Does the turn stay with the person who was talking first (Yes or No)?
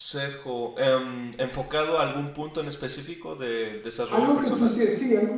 No